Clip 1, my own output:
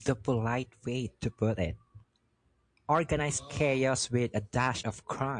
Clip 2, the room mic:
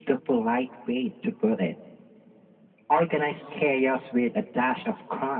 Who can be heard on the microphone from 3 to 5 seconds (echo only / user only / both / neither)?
echo only